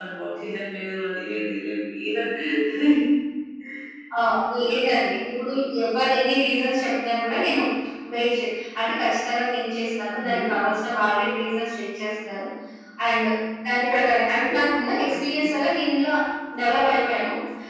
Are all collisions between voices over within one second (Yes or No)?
Yes